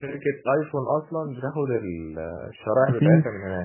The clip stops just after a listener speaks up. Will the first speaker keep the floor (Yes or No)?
No